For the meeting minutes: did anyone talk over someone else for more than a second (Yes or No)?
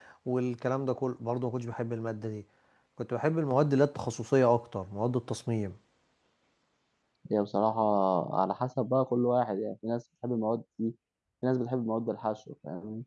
No